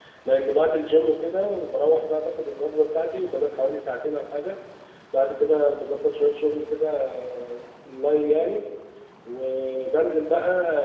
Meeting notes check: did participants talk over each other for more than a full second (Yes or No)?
No